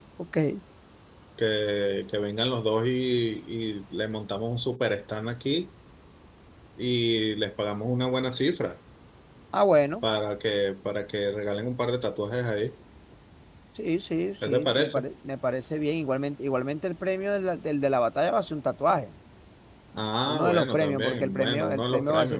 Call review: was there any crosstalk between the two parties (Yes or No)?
Yes